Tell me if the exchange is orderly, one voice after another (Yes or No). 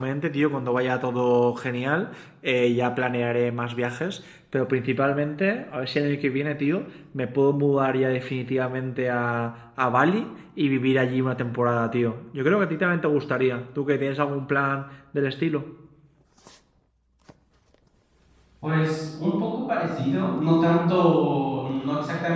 Yes